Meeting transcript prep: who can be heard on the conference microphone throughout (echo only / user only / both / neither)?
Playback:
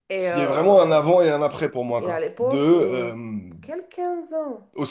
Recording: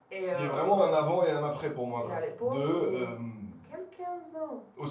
echo only